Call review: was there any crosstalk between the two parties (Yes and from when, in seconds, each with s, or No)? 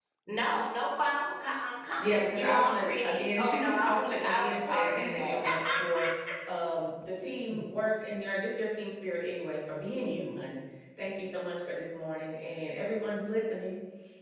Yes, from 2.0 s